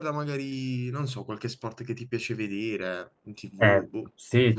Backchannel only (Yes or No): No